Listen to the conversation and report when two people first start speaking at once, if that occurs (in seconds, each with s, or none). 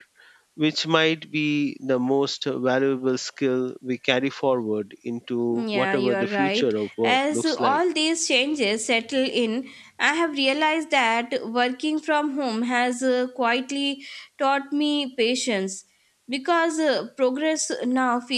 5.5 s